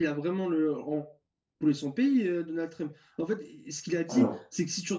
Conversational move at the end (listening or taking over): listening